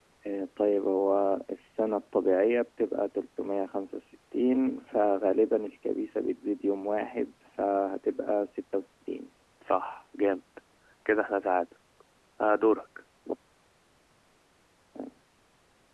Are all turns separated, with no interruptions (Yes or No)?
Yes